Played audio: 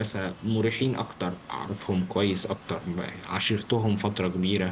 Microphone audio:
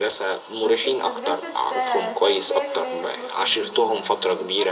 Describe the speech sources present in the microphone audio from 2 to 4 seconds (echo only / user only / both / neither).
both